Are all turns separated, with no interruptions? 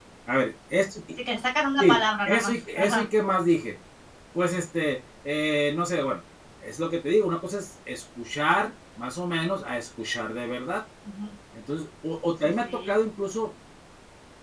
No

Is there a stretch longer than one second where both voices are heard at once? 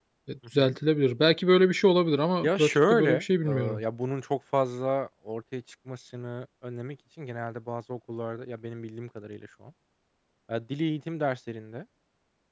Yes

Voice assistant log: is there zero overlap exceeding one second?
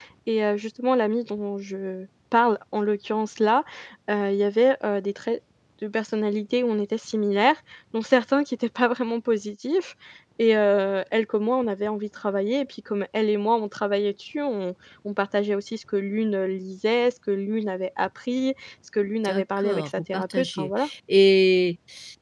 No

